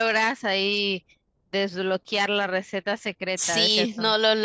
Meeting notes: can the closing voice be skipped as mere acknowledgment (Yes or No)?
No